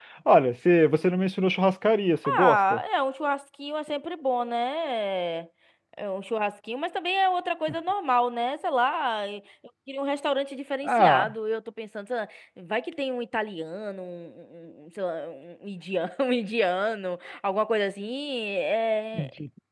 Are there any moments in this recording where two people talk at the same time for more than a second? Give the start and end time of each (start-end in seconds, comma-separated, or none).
none